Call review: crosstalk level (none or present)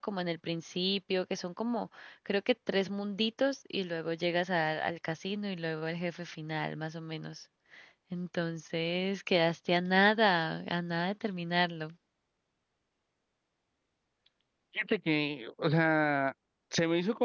none